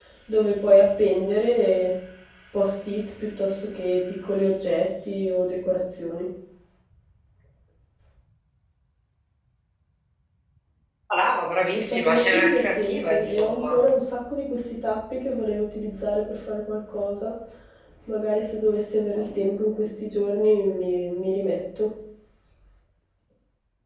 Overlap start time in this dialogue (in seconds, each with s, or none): 11.7 s